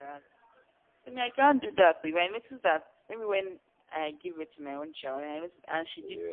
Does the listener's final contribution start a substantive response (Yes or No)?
No